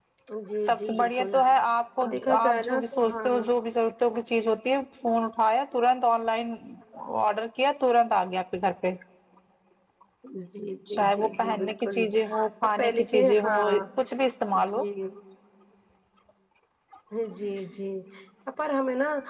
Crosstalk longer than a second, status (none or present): present